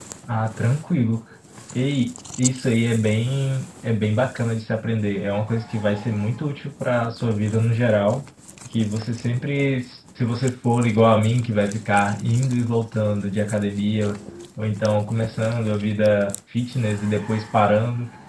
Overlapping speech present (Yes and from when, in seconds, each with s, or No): No